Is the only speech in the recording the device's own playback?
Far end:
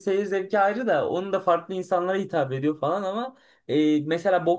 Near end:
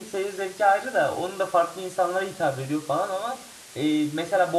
Yes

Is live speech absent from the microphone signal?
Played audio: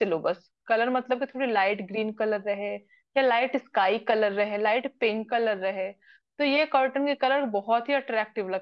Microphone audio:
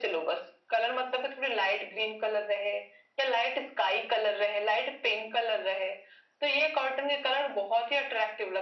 Yes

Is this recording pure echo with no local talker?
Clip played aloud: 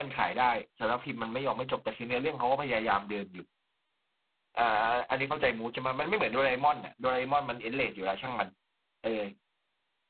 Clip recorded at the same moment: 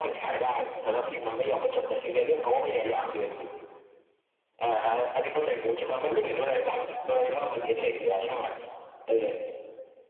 Yes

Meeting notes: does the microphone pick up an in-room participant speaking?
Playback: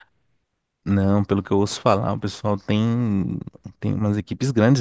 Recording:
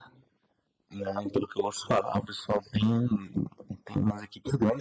No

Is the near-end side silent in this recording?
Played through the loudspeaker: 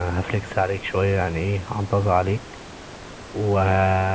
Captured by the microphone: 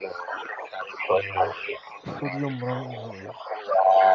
No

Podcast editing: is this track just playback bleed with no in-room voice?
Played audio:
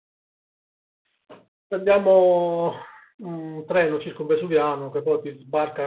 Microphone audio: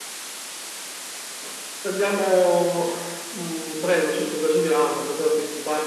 Yes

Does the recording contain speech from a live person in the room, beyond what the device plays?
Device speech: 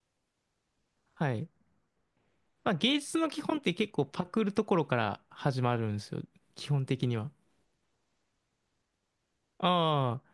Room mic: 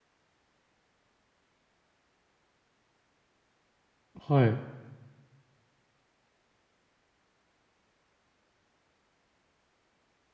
Yes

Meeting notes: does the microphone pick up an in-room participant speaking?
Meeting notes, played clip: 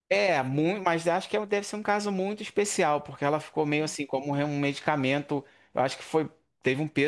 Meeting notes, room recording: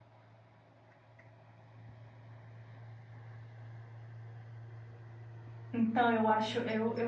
Yes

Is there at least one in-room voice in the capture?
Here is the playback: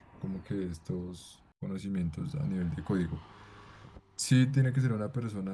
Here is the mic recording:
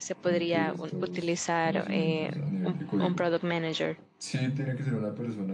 Yes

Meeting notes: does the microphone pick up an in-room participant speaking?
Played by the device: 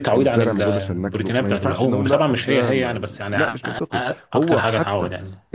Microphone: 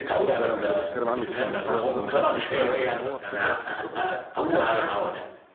Yes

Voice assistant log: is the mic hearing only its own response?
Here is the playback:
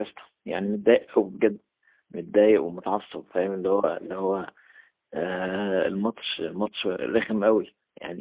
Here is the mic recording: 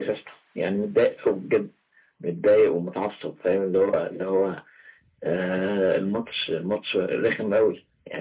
Yes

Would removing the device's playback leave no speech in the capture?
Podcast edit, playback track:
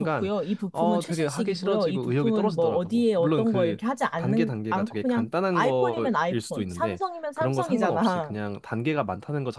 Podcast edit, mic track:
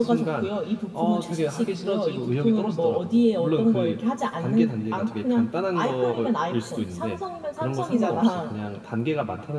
Yes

